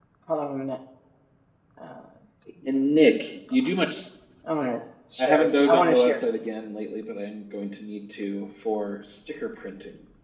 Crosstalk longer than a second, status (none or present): present